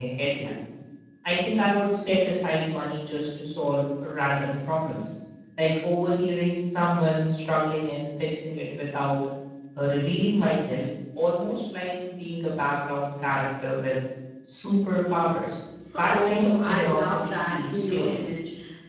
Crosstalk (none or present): present